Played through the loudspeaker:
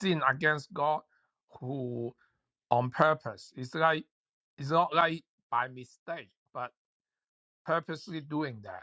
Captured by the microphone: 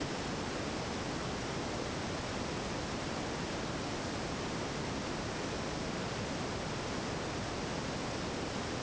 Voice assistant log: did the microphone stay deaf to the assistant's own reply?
Yes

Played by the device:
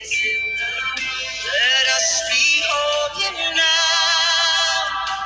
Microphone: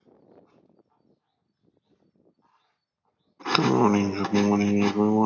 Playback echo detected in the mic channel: No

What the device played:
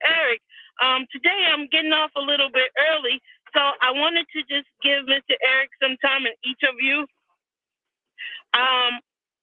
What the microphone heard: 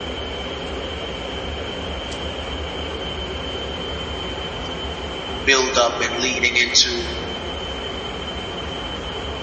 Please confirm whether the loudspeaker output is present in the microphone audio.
No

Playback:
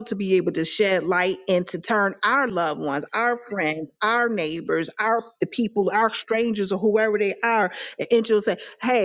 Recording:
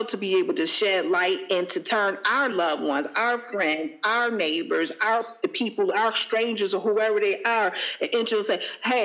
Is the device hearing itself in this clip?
Yes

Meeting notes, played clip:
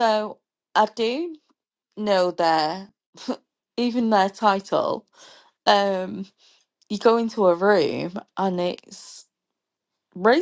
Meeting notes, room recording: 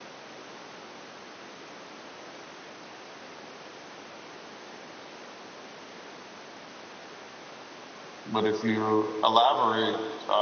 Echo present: No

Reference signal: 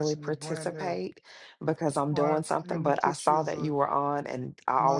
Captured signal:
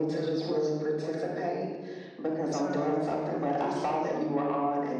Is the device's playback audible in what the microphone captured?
Yes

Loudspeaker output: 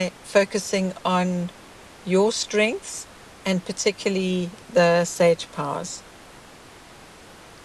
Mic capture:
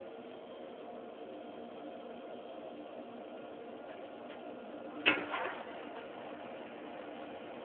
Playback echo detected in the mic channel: No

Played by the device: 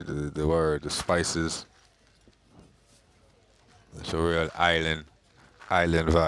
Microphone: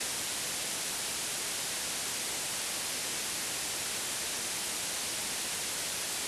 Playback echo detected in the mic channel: No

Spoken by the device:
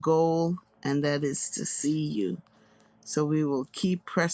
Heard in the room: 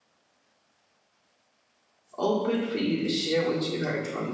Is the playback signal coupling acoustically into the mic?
No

